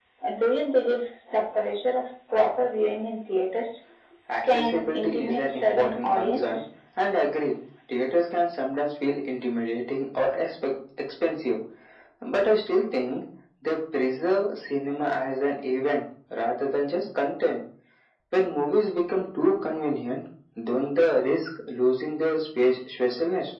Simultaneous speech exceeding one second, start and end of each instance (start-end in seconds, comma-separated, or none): 4.5-6.6